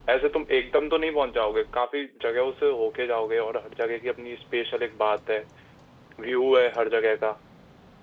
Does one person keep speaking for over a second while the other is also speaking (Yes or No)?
No